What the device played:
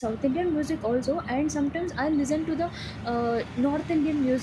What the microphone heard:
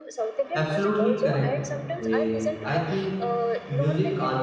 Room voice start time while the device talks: 0.5 s

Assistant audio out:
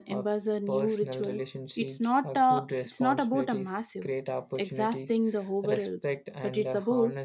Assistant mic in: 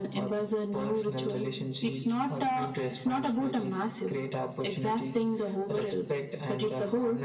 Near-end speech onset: none

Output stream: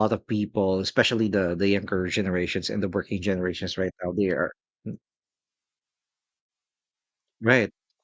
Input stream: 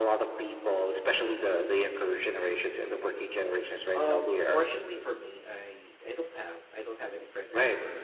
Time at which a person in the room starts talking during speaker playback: 3.9 s

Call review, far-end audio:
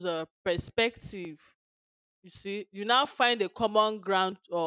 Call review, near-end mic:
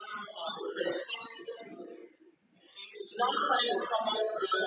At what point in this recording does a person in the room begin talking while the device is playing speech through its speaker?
none

